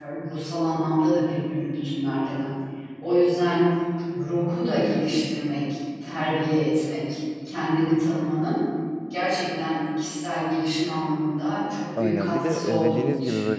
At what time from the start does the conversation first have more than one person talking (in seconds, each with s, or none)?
12.0 s